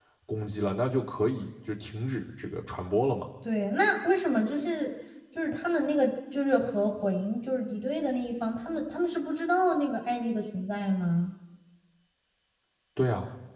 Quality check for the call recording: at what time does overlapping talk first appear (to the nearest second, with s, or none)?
none